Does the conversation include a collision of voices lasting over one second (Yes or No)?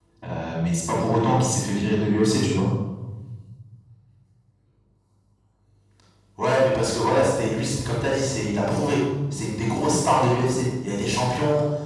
No